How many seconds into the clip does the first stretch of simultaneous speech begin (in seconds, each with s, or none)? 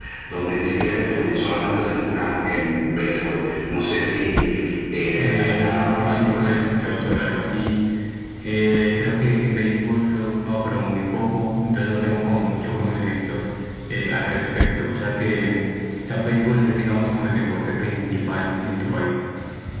5.2 s